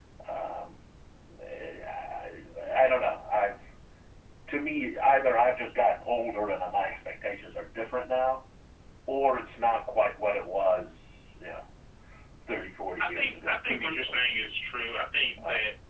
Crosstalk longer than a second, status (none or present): present